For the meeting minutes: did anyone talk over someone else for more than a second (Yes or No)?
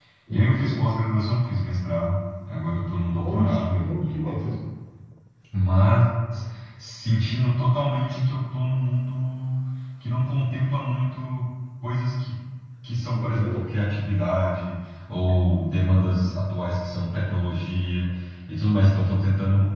Yes